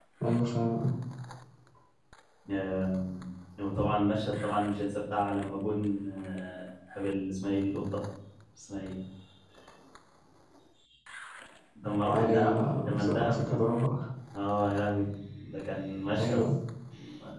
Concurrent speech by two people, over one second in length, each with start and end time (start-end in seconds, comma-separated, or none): 12.2-13.6